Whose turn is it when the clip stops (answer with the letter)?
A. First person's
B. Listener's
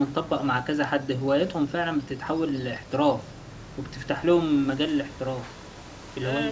B